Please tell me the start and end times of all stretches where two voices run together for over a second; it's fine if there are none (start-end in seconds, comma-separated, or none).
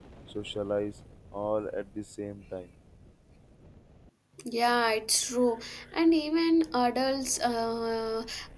none